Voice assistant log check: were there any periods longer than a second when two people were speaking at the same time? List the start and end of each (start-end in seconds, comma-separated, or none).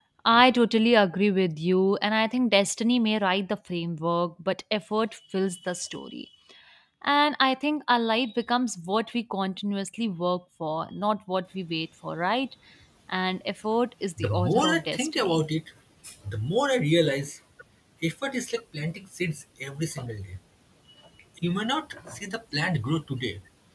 14.2-15.4